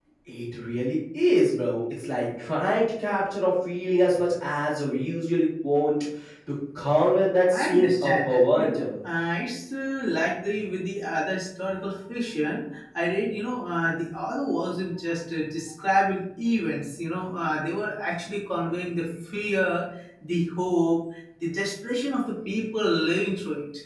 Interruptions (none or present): present